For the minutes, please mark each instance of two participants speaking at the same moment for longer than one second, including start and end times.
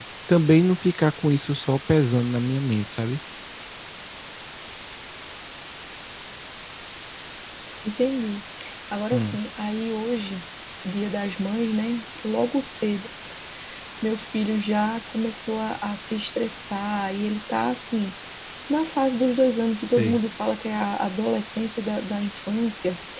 none

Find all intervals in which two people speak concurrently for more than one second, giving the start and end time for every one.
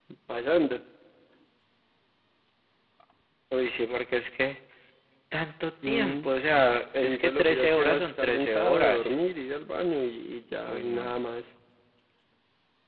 7.0-9.1

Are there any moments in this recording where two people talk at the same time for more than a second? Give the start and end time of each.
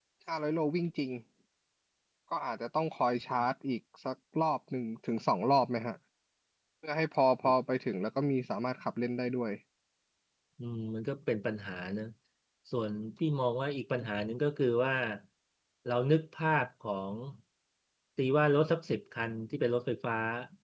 none

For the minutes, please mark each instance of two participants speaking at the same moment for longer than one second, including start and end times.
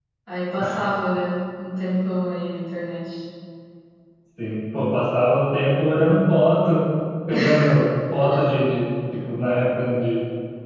none

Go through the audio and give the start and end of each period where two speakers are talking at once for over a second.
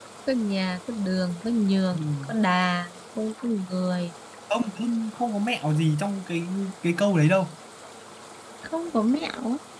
none

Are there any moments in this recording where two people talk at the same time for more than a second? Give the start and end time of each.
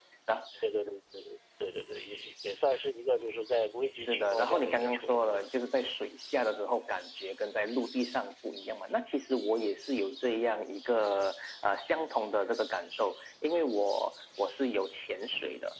4.0-5.5

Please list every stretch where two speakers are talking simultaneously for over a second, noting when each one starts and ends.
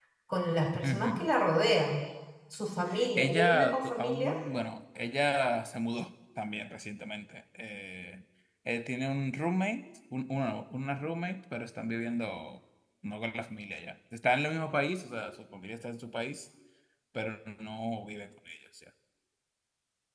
3.2-4.4

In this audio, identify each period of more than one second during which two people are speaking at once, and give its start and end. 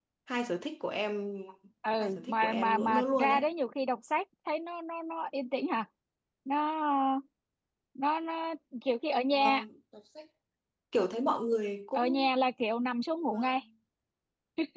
2.0-3.4

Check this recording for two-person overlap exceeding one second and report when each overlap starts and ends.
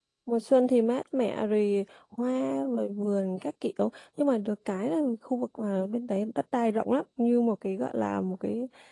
none

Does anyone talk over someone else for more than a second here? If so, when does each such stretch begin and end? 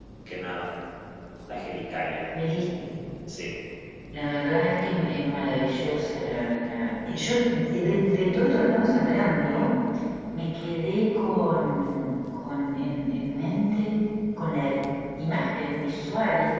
none

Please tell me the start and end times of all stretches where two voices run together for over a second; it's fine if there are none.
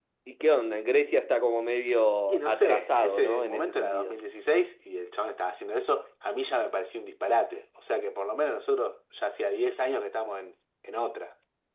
2.3-4.2

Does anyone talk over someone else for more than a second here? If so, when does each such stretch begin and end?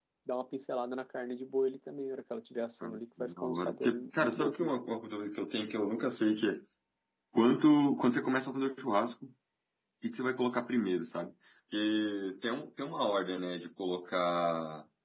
2.8-4.7

